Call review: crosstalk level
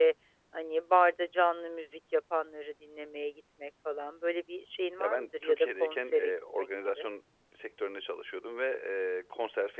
present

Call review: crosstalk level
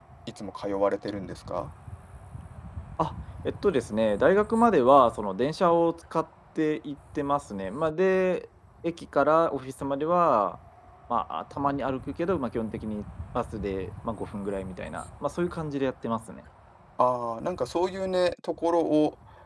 none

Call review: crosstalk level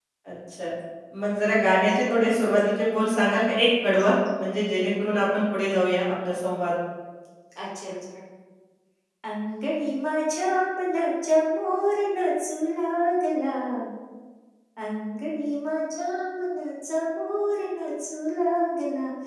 none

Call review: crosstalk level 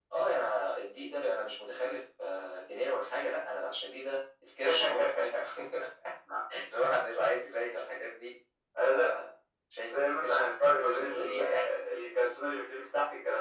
present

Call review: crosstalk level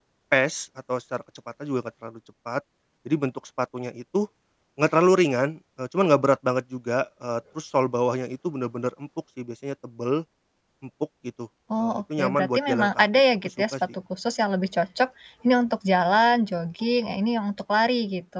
present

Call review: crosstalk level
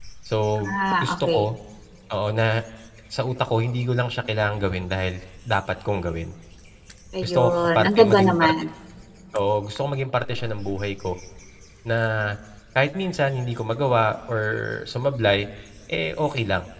present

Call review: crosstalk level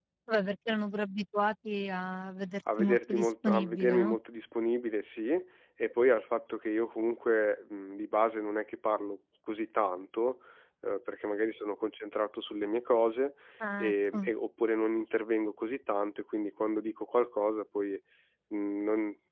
present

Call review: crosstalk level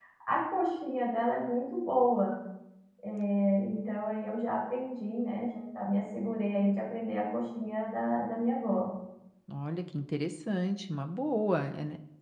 none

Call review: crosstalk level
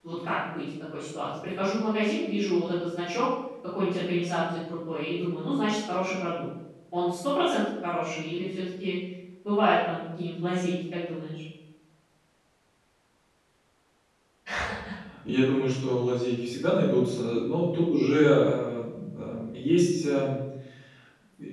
none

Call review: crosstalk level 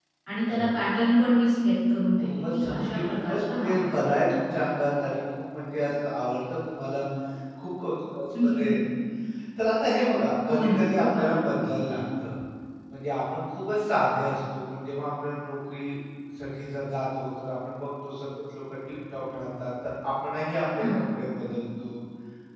present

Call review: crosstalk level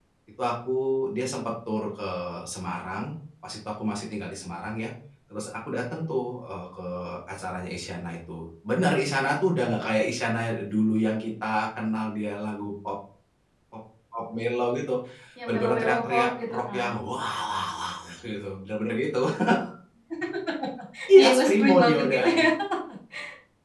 present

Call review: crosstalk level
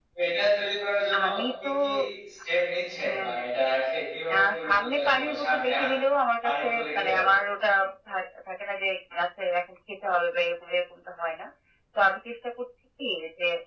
present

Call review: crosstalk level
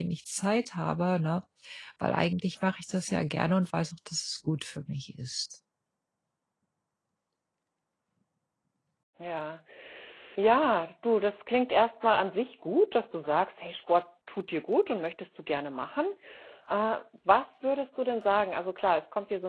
none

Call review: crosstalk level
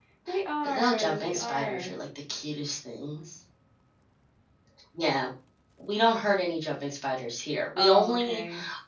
present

